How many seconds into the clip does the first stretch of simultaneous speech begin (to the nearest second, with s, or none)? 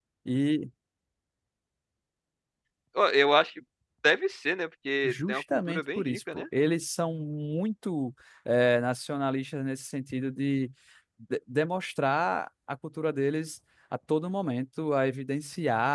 5 s